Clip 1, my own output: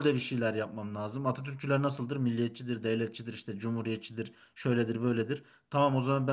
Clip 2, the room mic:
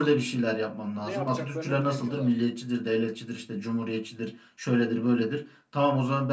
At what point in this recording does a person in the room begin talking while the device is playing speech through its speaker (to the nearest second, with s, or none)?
1 s